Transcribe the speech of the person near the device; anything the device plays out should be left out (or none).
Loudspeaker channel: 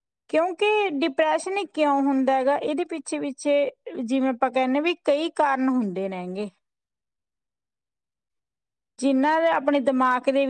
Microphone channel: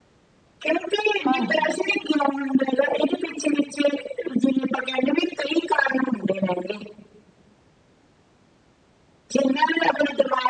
ਹਾਂਜੀ।